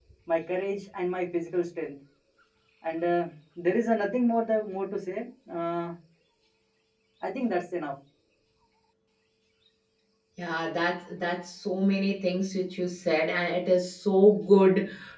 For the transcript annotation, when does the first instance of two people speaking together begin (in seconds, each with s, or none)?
none